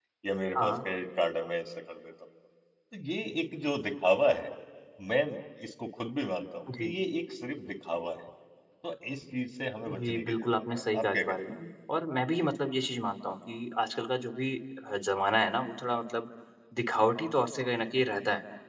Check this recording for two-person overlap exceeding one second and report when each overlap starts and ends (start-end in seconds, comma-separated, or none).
9.9-11.4